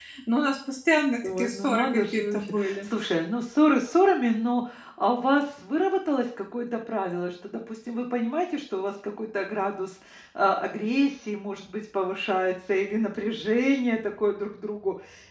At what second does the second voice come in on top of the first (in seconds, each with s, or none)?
1.2 s